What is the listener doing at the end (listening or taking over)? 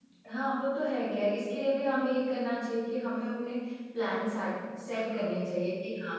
listening